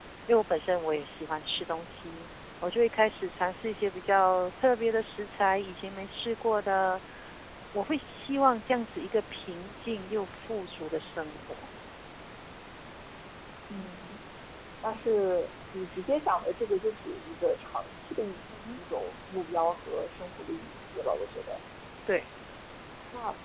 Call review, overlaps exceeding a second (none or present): none